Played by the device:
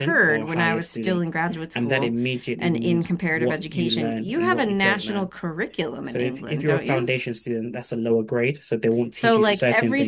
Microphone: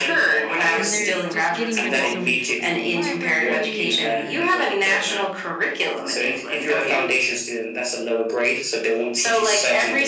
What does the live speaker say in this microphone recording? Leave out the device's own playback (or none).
And they're just getting rid of so many books in the library and